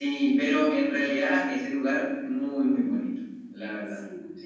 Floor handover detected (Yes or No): Yes